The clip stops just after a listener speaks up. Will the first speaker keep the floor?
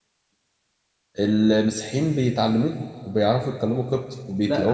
No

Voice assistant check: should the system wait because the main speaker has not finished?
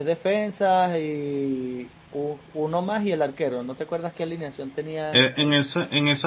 No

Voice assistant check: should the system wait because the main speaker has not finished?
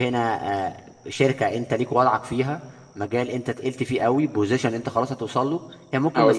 Yes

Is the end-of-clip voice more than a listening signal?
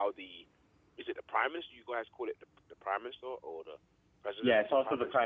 Yes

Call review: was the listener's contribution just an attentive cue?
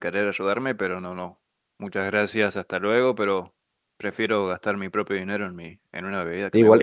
No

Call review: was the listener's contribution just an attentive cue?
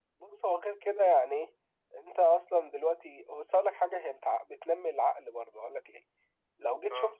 Yes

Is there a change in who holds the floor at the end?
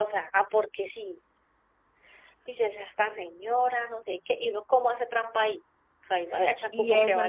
Yes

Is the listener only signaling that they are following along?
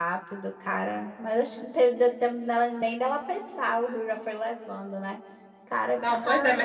No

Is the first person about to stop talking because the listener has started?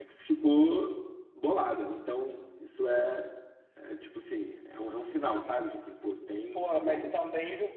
Yes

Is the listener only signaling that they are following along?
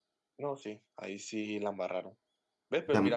Yes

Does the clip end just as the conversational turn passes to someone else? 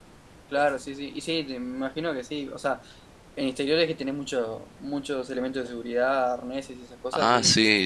Yes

